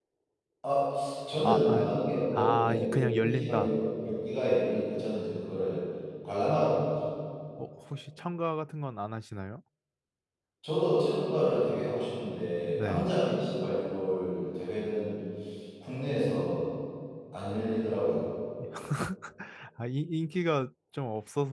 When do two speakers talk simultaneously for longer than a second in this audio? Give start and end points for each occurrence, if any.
2.3-3.7

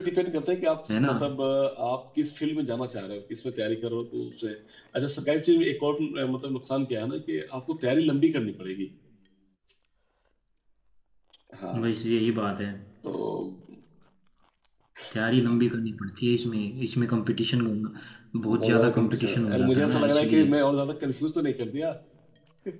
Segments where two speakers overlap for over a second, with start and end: 18.4-20.5

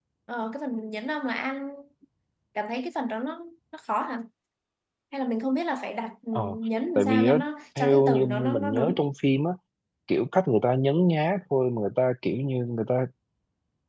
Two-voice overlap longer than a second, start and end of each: 7.8-9.0

